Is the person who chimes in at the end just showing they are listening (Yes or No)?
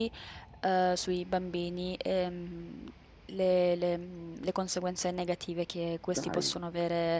Yes